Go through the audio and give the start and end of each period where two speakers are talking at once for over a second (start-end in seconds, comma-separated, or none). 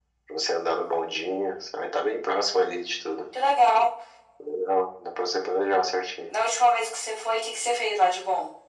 none